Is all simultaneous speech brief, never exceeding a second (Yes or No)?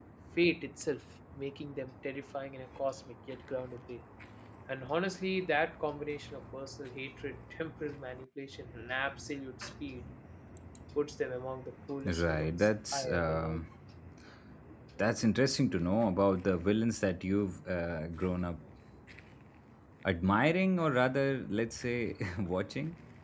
No